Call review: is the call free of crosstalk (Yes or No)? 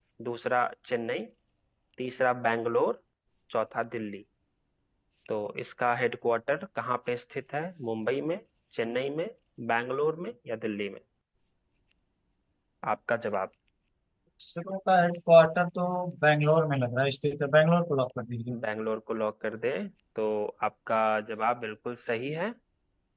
Yes